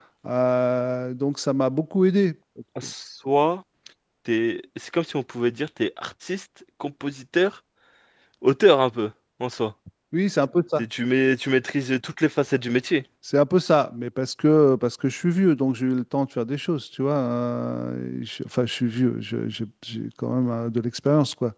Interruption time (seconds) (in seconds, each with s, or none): none